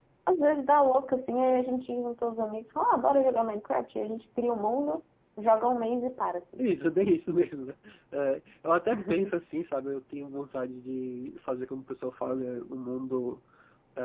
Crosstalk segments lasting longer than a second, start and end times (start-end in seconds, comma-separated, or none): none